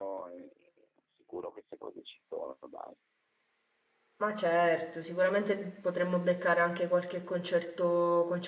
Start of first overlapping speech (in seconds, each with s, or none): none